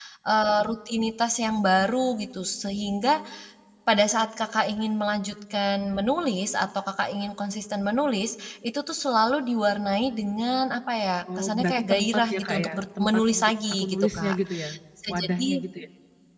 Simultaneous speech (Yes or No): Yes